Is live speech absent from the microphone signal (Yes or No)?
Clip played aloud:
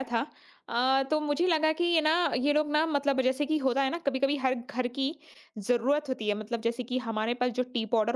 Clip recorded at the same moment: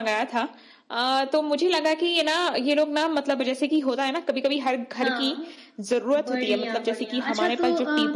No